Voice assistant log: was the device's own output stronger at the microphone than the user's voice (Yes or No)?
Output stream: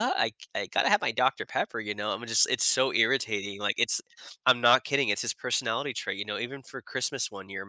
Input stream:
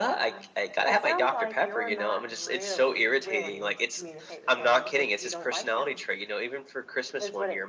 Yes